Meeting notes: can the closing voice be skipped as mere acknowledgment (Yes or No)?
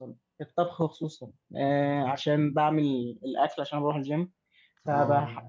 Yes